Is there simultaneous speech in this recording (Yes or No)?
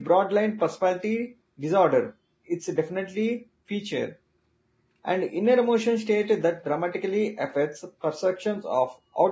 No